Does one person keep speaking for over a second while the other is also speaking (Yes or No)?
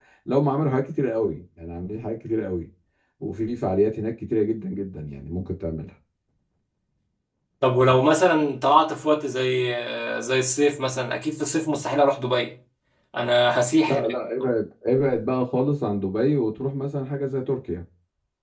No